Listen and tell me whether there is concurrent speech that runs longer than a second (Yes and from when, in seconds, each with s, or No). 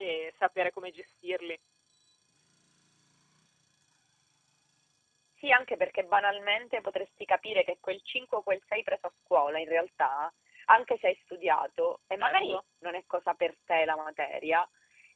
No